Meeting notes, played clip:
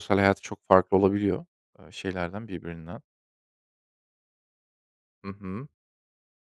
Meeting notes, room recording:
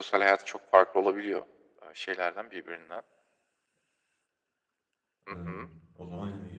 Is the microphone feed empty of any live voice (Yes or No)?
No